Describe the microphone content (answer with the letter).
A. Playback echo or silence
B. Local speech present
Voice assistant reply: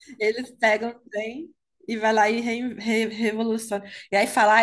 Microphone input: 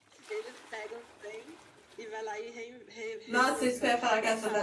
B